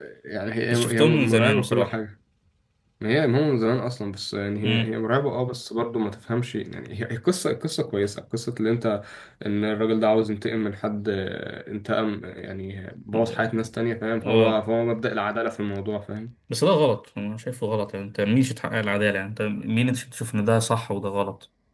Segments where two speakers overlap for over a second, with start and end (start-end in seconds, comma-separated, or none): 0.7-1.9